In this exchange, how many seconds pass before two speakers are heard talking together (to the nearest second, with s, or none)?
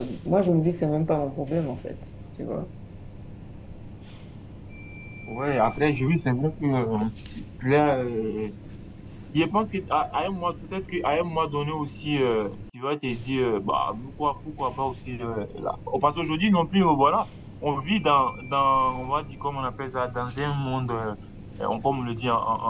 none